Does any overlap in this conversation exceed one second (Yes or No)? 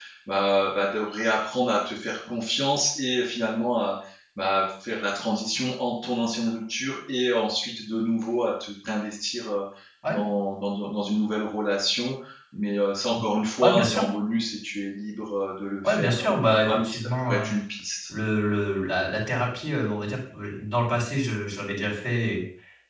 Yes